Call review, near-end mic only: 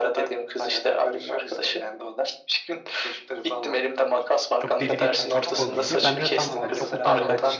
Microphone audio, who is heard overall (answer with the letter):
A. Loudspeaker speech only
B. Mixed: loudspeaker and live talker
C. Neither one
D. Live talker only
B